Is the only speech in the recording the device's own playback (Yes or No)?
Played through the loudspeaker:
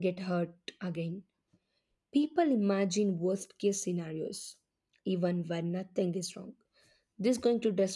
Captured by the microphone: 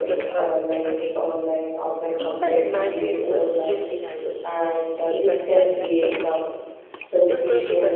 No